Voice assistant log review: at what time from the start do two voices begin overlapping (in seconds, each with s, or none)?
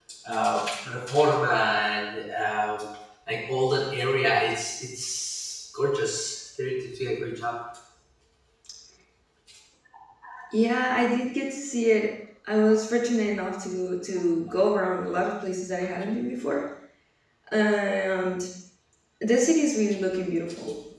none